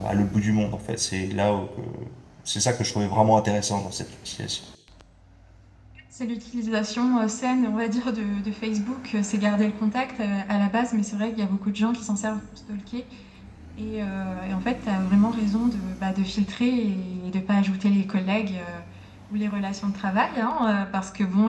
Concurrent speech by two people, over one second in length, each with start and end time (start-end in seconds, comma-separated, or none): none